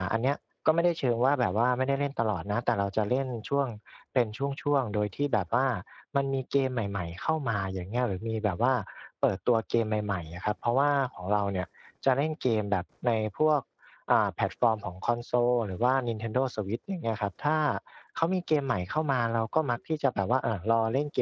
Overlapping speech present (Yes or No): No